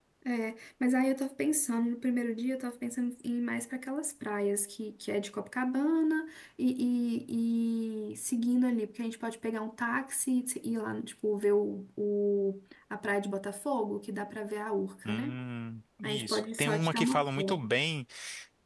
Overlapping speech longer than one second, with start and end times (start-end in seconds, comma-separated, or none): 16.0-17.7